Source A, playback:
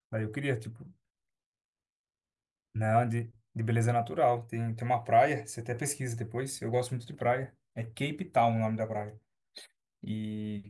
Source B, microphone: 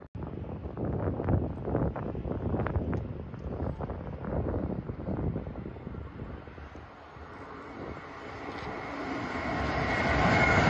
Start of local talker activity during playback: none

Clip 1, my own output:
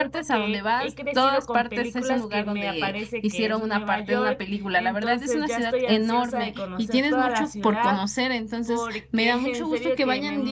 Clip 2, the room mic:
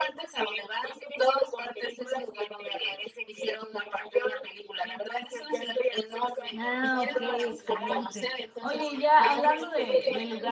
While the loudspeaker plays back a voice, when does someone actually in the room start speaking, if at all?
6.6 s

